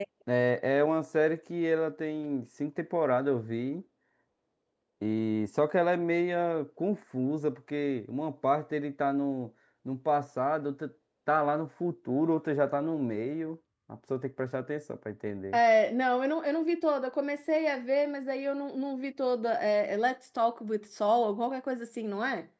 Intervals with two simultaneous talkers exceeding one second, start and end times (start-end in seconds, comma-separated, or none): none